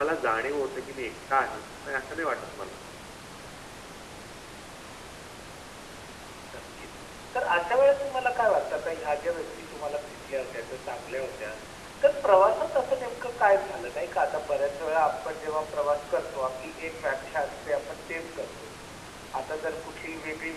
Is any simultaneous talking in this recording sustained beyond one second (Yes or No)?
No